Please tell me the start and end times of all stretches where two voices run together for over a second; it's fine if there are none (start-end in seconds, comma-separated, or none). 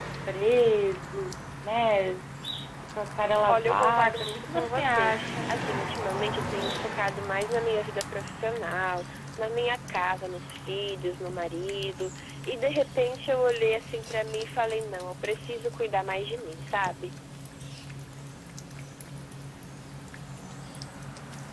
3.5-5.5